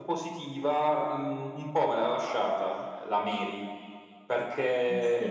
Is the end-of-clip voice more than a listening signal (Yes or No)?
No